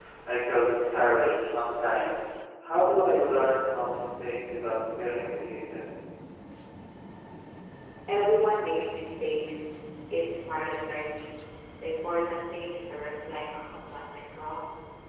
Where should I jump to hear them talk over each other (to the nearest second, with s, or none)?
none